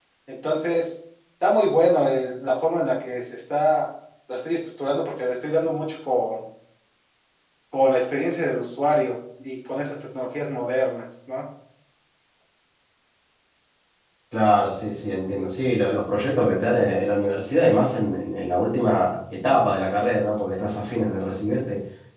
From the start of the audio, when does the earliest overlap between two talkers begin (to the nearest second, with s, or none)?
none